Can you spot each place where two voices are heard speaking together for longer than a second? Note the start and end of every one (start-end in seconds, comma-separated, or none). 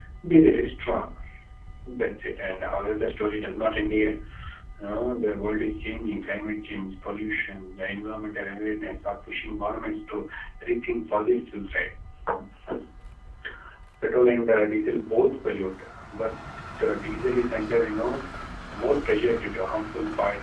none